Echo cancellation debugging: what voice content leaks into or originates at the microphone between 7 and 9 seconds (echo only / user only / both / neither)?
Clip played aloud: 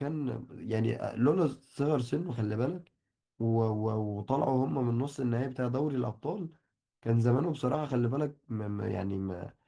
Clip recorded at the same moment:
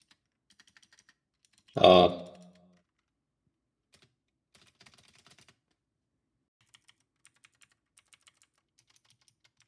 neither